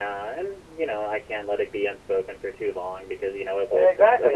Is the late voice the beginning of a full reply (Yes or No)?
Yes